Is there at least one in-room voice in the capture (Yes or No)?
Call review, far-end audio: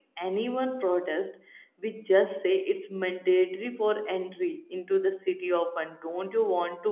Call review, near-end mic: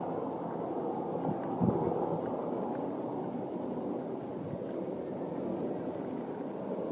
No